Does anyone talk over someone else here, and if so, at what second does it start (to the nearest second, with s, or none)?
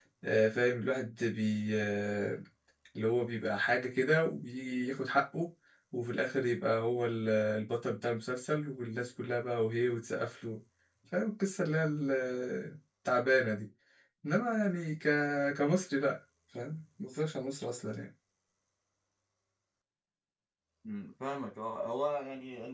none